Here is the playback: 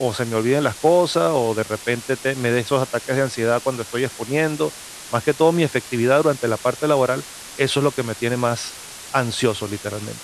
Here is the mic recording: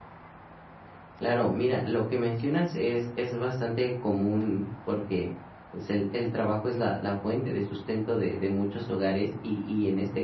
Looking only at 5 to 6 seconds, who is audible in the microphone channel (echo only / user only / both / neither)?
user only